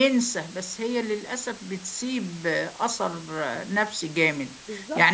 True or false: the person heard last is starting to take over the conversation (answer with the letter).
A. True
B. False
B